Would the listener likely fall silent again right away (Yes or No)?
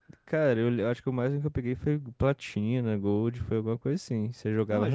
No